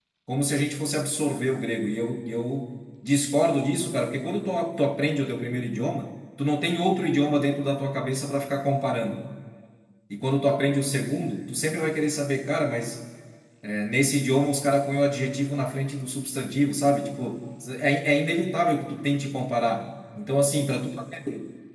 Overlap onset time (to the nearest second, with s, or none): none